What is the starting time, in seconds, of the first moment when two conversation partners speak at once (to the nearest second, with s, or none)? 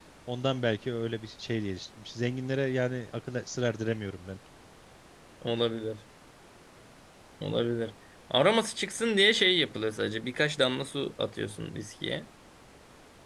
none